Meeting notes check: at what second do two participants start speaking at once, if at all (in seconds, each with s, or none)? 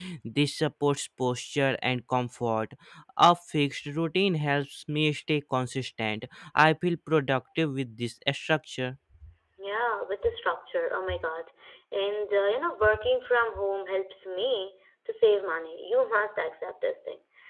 none